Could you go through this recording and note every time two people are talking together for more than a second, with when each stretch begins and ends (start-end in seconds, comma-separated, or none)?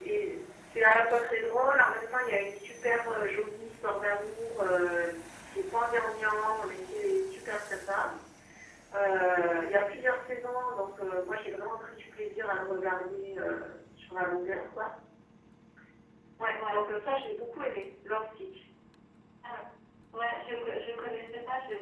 none